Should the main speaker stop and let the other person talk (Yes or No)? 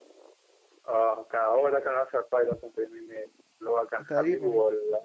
No